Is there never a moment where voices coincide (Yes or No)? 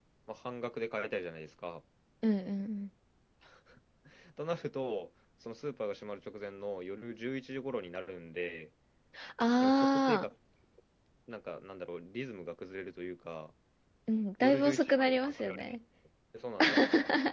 No